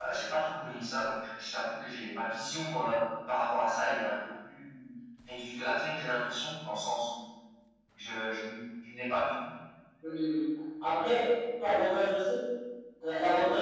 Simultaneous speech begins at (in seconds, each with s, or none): none